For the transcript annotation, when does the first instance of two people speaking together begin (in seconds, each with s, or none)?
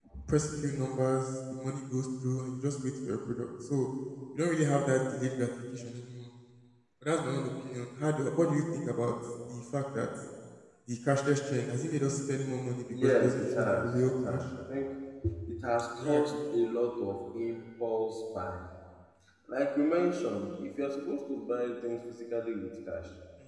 12.9 s